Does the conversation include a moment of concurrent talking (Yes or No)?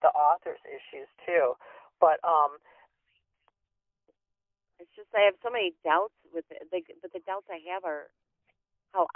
No